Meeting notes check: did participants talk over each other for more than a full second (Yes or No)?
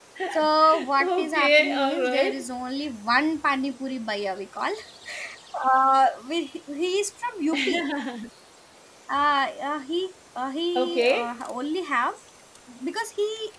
Yes